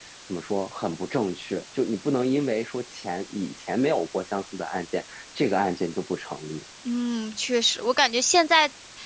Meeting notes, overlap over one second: none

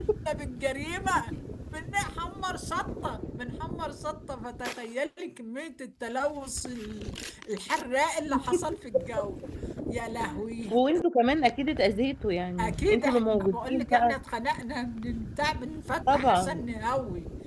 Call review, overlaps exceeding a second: present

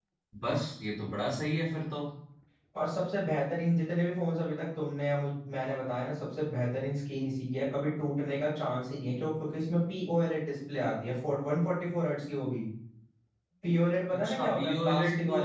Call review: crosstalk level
present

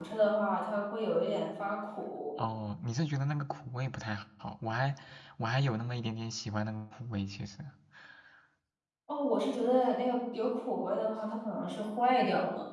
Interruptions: none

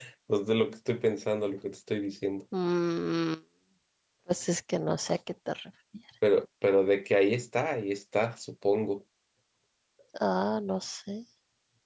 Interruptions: none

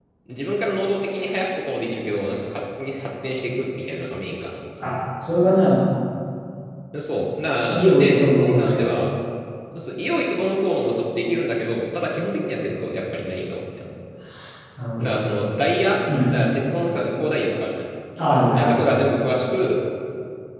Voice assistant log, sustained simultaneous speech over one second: present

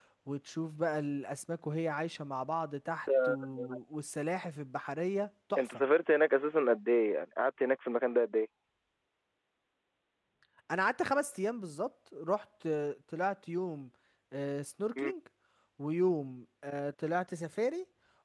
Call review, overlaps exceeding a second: none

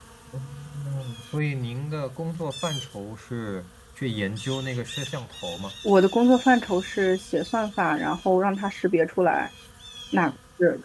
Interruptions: none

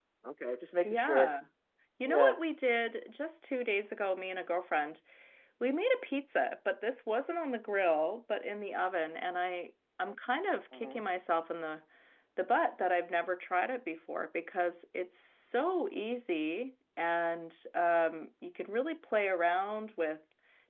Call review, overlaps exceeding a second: none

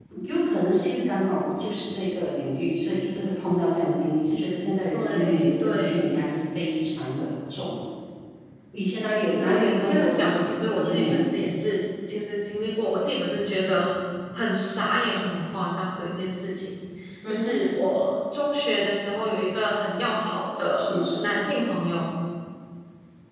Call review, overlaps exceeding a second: present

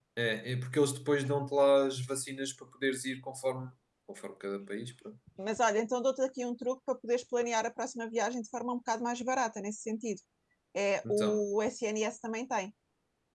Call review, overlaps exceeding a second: none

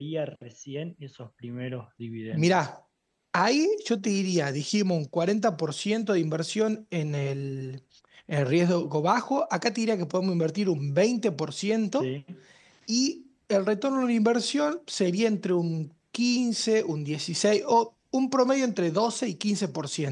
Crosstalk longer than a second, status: none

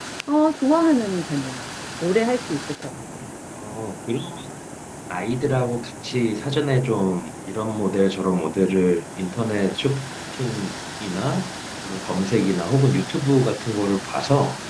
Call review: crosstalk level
none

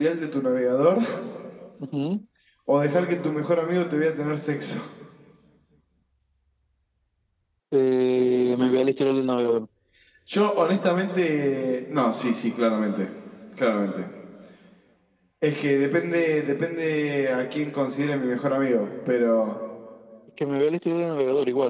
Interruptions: none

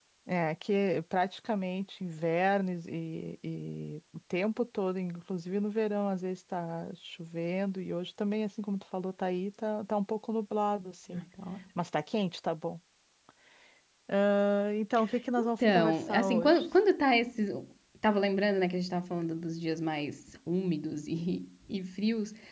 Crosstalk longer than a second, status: present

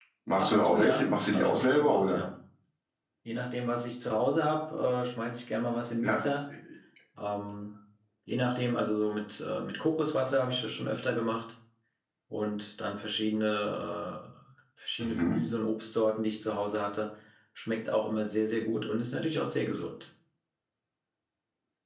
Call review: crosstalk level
present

